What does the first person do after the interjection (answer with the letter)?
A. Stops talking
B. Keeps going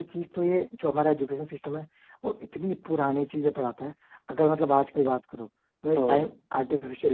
B